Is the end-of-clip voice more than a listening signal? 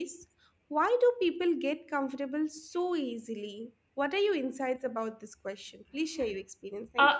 Yes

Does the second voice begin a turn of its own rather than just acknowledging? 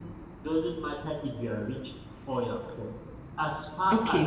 Yes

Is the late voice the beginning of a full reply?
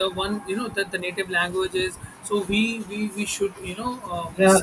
Yes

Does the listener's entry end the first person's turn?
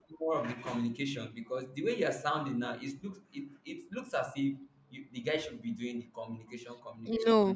Yes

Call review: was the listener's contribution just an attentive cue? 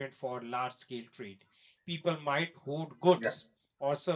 Yes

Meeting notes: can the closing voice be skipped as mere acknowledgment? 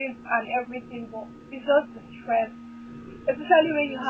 Yes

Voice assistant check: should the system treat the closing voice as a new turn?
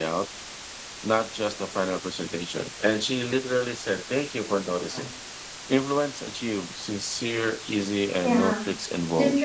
Yes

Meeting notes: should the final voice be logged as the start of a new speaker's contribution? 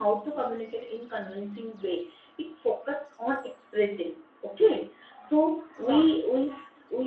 No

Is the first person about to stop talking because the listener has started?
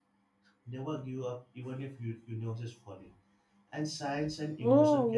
Yes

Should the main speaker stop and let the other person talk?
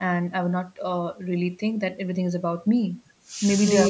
No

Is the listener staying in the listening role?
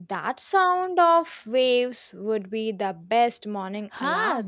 No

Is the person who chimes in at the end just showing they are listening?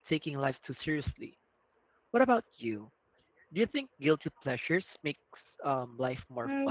No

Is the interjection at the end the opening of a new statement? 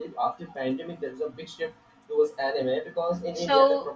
No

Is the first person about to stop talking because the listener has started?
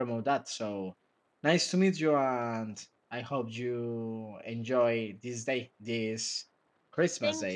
Yes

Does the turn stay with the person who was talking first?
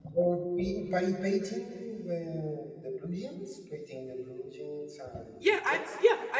No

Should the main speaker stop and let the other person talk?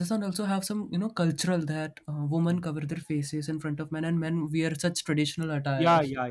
Yes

